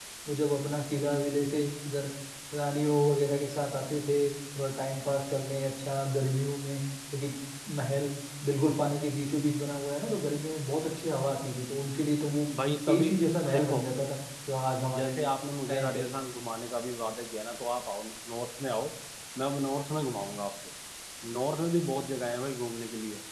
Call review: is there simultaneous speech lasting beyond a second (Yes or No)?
No